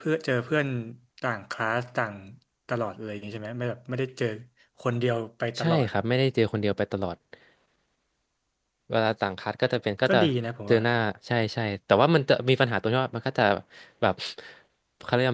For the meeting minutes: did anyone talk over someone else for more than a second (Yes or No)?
No